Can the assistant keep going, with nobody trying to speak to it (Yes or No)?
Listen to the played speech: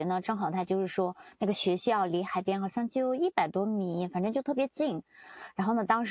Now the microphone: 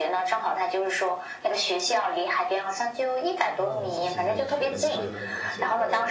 No